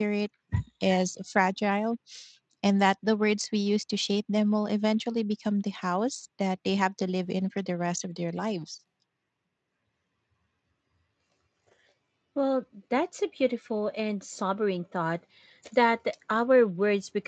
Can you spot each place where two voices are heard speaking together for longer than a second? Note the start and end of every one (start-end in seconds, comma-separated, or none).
none